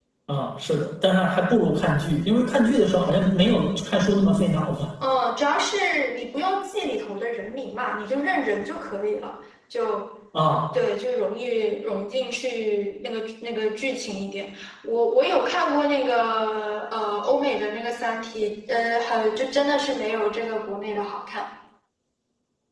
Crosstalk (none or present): none